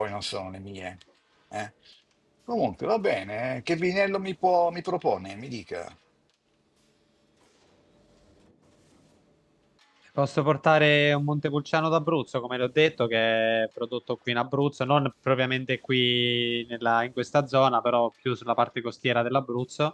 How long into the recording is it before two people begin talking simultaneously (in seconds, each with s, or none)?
none